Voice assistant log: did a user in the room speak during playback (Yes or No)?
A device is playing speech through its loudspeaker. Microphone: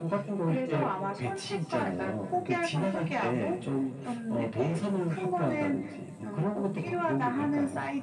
No